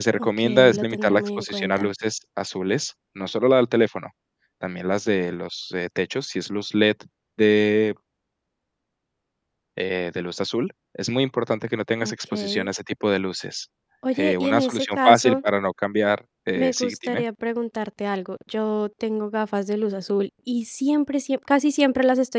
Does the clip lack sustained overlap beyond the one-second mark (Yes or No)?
No